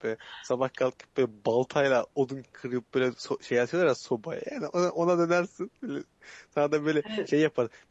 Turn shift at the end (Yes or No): No